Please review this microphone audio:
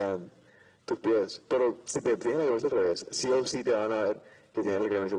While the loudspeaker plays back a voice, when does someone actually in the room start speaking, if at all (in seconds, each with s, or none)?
none